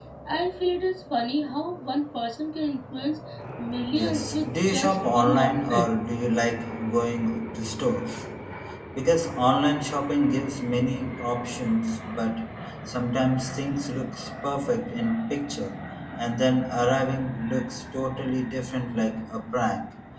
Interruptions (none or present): present